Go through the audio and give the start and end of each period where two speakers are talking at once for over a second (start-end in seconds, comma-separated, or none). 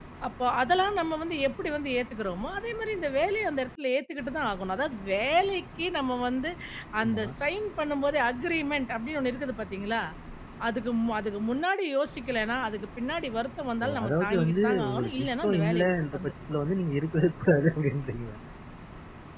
13.8-16.3